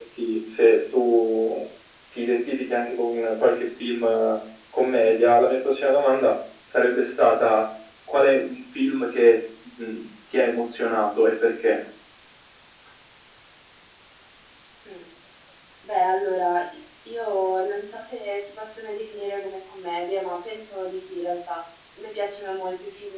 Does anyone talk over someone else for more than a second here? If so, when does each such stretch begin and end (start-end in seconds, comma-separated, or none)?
none